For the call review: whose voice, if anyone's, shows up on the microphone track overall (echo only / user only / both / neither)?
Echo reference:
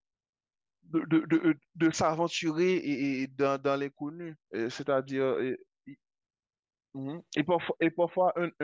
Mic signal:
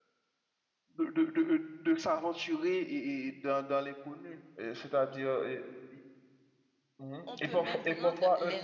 both